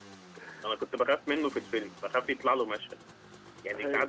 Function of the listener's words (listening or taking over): listening